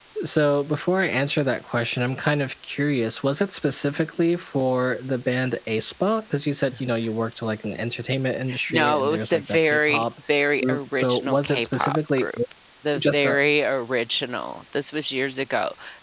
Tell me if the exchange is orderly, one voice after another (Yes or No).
No